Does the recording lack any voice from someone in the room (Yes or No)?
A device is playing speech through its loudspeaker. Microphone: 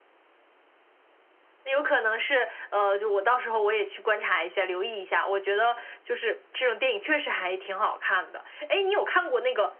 Yes